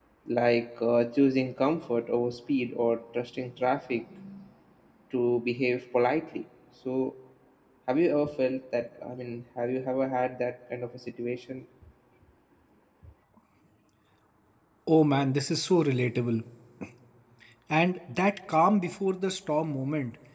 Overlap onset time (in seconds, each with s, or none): none